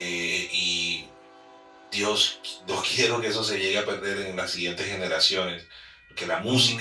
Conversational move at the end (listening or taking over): listening